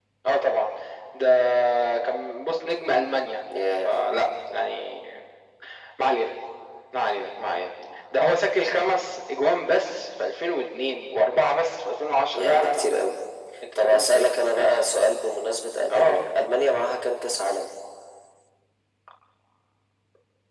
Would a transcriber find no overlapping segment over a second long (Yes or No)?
No